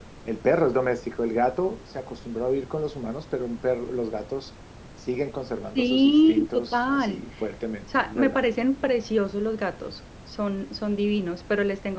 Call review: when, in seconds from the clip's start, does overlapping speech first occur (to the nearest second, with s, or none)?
6 s